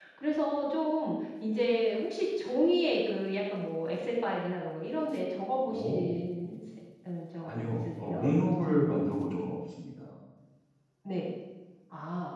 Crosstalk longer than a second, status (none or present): present